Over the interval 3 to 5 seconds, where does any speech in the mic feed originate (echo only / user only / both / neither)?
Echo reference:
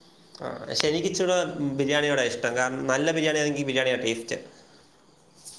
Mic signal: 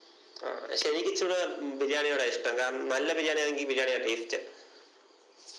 echo only